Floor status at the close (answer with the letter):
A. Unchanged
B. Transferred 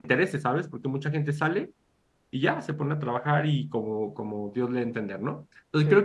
A